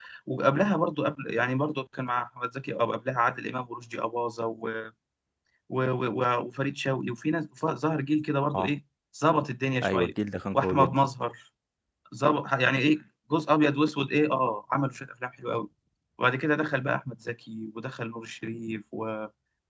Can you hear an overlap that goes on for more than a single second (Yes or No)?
No